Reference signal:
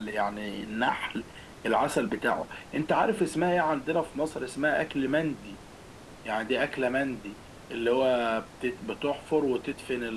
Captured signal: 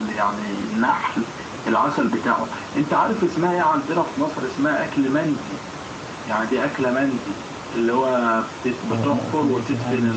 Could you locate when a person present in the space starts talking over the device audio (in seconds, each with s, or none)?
8.9 s